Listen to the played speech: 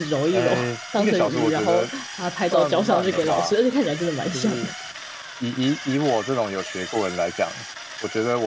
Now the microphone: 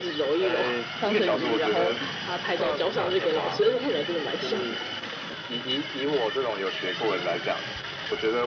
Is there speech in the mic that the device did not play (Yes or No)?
No